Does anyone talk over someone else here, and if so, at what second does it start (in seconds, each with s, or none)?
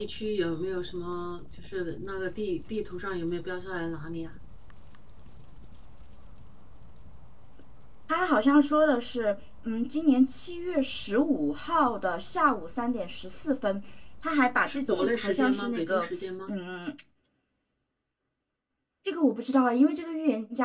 14.7 s